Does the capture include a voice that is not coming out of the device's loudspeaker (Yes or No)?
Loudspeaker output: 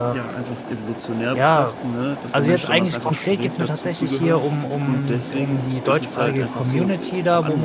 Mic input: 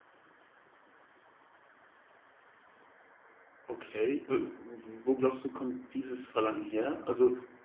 Yes